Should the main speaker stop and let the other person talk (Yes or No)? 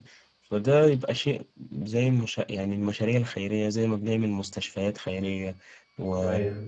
No